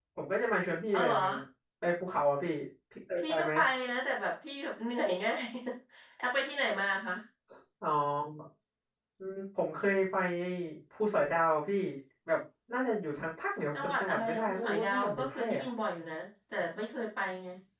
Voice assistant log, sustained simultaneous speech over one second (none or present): present